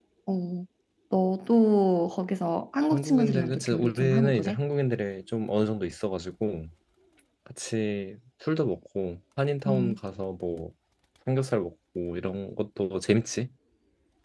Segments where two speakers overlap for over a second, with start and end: 2.9-4.6

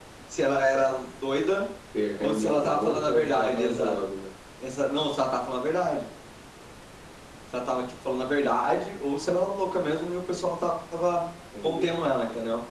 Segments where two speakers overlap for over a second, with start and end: 2.2-4.0

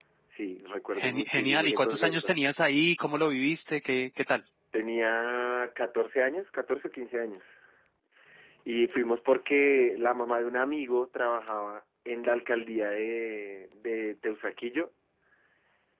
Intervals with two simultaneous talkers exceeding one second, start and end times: 0.9-2.4

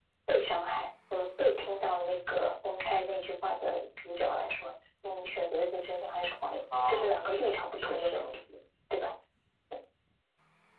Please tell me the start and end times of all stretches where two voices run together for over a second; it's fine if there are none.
6.9-8.3

